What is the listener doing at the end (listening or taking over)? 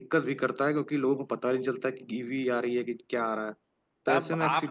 taking over